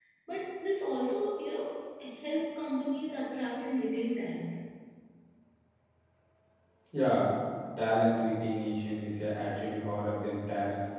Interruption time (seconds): none

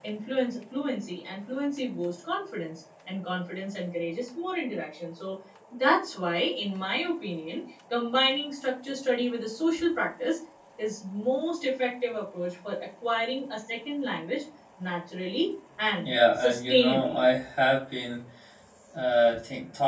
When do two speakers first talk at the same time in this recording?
16.0 s

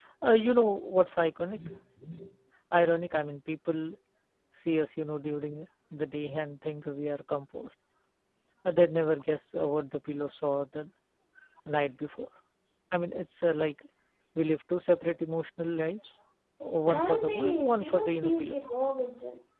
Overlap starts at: 16.9 s

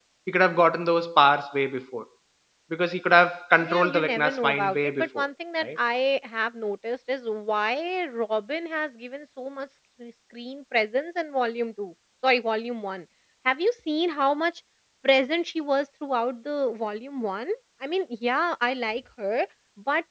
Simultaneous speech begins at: 3.6 s

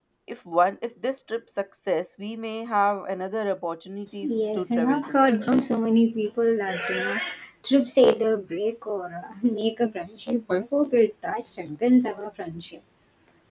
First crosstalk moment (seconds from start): 4.2 s

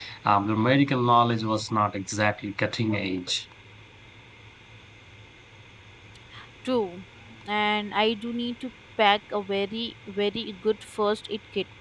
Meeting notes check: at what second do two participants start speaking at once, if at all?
none

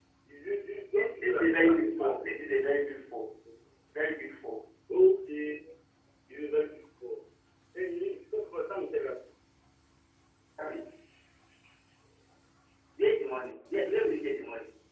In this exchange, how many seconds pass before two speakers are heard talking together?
1.0 s

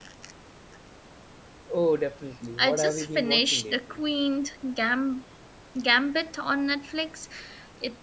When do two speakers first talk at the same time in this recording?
2.6 s

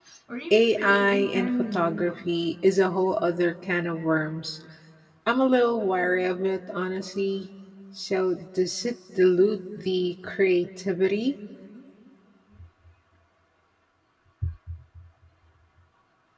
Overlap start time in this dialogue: 0.5 s

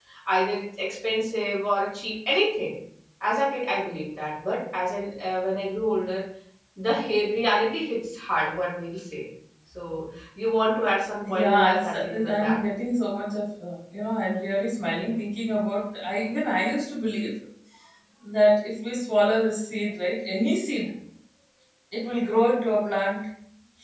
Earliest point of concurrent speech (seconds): 11.2 s

